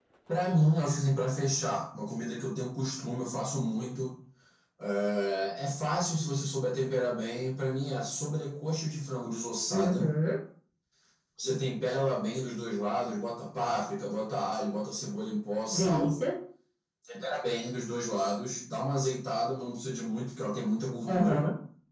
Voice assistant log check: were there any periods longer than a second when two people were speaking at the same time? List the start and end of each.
none

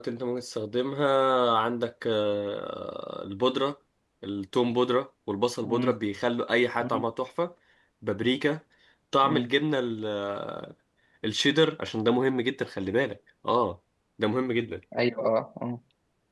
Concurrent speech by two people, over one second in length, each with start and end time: none

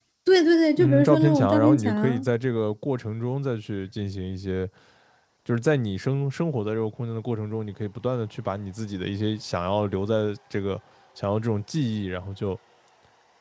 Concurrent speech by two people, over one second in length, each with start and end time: 0.8-2.3

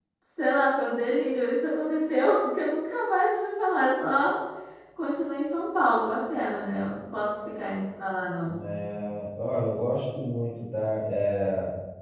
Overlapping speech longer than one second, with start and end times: none

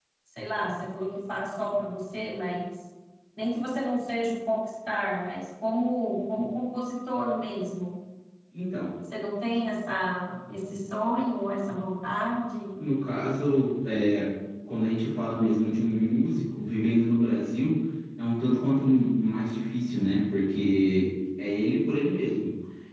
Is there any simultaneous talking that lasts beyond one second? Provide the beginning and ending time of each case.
none

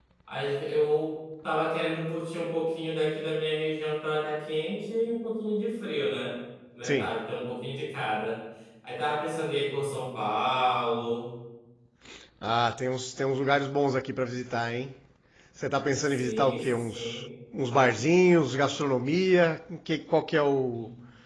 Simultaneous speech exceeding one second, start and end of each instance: 16.0-17.3

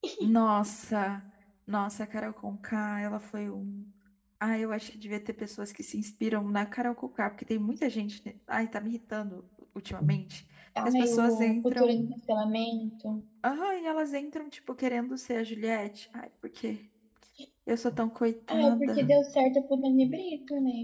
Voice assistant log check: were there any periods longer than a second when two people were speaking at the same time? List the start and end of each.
10.8-12.1

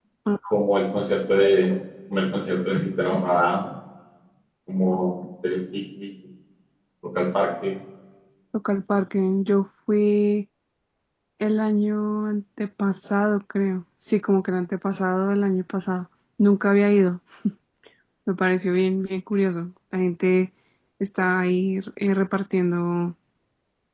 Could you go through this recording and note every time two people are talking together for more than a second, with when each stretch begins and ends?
none

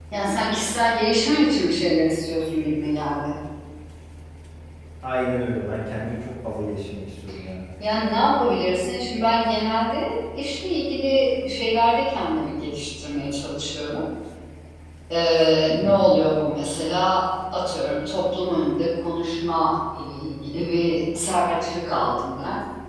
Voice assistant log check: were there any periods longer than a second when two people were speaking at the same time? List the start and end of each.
none

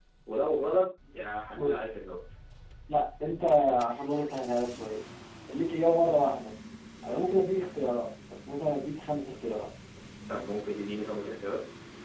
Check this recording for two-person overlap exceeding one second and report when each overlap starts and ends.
none

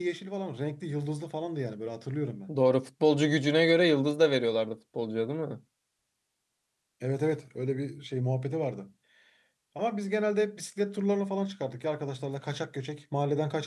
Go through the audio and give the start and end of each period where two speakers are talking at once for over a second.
none

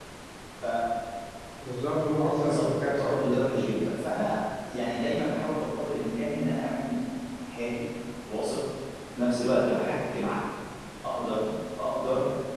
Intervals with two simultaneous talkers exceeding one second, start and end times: 2.2-3.4

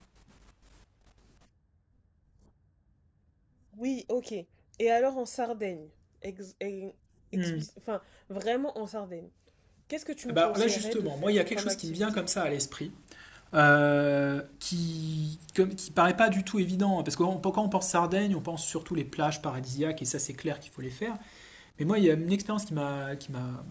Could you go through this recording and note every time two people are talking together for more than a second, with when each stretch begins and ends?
10.3-12.2

